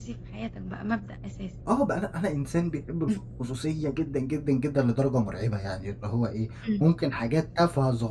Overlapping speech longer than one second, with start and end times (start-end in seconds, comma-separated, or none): none